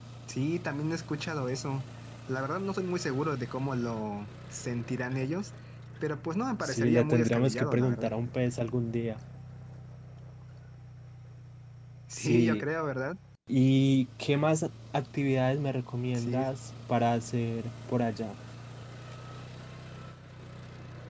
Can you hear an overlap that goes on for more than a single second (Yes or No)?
Yes